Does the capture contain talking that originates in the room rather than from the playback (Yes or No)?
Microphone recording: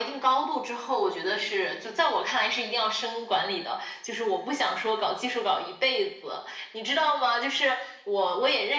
No